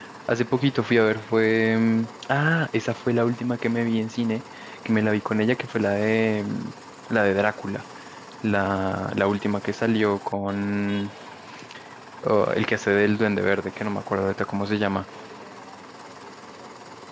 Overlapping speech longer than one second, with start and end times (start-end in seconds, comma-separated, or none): none